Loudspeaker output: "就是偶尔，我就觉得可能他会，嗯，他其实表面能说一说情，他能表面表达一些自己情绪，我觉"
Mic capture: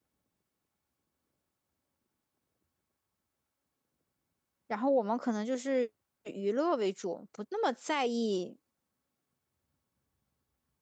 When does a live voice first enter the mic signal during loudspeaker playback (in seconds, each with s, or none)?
4.7 s